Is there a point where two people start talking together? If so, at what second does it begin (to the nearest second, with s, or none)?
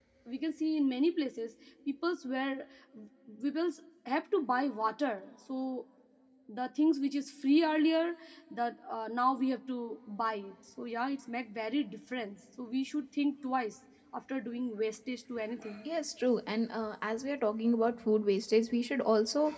none